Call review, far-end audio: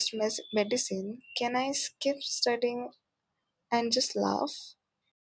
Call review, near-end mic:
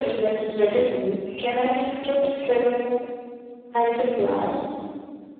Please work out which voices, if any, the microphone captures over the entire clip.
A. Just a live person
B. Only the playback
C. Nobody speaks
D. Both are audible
D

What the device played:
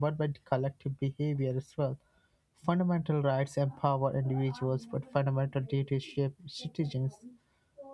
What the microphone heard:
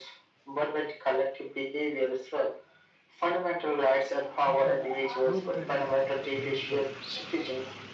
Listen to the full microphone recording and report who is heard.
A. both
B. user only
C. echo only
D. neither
A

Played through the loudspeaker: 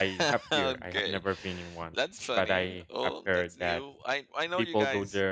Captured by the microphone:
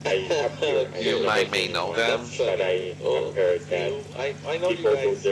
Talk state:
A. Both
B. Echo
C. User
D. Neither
A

